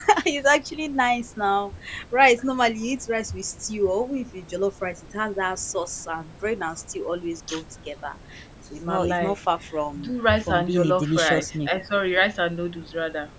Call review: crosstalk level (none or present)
present